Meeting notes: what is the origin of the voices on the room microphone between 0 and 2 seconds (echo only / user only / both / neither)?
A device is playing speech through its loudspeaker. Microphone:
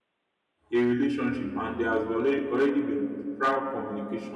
user only